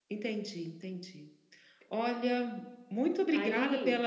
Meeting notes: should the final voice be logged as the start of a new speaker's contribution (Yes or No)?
No